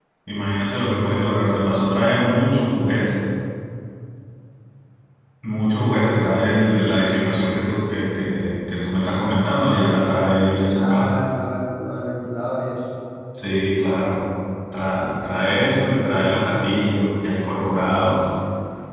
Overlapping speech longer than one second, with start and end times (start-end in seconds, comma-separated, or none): none